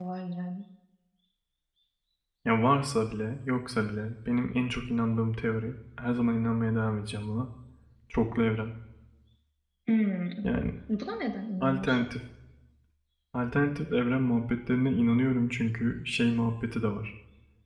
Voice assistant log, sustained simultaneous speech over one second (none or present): none